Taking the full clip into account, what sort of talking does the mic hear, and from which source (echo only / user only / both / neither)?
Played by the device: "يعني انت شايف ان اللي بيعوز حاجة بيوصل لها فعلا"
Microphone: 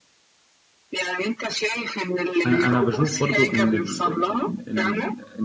both